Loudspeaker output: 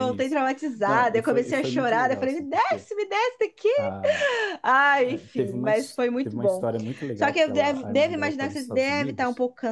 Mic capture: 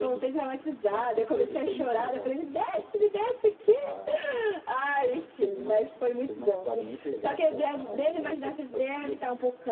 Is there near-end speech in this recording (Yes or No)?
No